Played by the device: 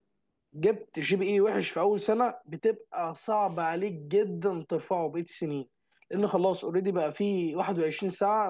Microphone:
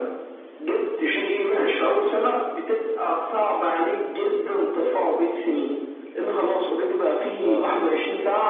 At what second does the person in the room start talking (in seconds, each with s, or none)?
7.4 s